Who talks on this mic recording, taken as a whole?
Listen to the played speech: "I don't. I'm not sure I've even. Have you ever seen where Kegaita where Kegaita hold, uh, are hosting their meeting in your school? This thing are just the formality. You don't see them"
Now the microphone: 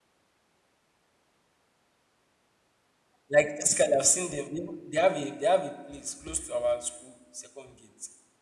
user only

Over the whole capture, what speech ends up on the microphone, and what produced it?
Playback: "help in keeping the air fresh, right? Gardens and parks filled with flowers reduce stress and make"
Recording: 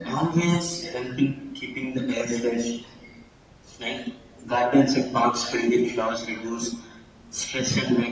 echo only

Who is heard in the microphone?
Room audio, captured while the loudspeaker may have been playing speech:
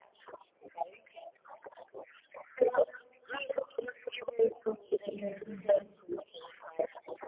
both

